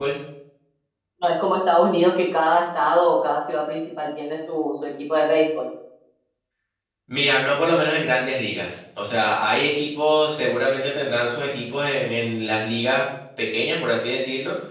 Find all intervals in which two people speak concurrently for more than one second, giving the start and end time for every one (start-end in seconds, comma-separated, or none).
none